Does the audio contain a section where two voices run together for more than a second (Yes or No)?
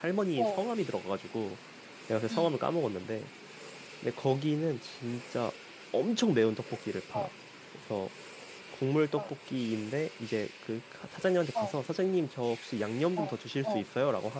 No